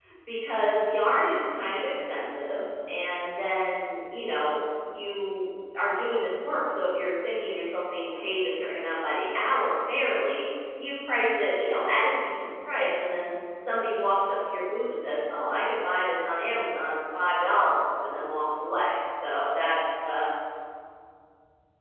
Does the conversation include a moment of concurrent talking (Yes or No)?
No